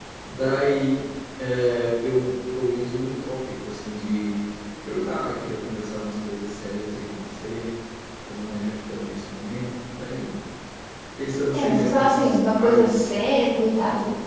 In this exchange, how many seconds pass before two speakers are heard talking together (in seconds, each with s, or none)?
11.5 s